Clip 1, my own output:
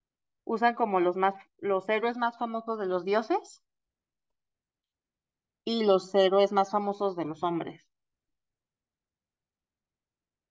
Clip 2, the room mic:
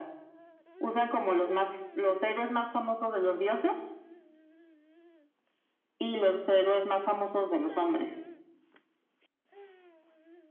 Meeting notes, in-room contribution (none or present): none